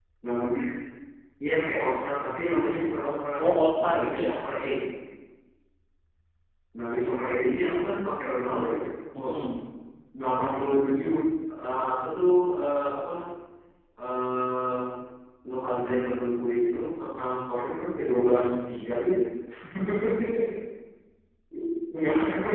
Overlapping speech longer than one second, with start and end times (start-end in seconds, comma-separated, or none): none